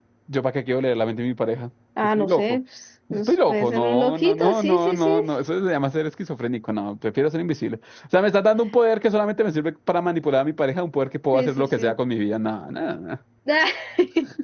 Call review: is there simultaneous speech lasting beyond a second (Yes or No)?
Yes